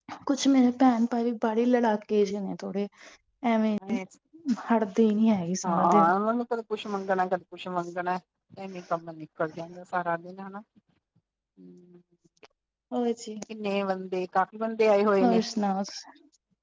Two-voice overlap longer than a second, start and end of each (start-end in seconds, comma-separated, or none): none